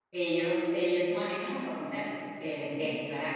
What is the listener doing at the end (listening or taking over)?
listening